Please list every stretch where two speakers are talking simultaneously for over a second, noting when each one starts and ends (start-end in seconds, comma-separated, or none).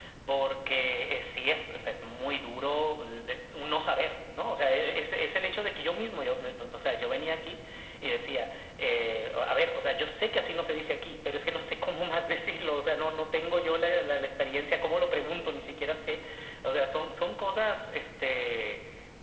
none